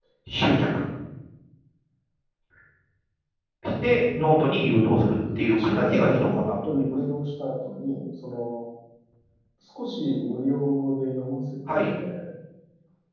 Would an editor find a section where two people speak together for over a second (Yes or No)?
Yes